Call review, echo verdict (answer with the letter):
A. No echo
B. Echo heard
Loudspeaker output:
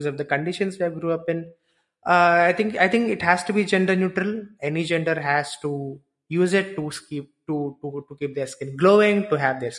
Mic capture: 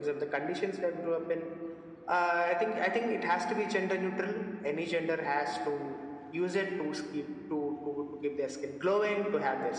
B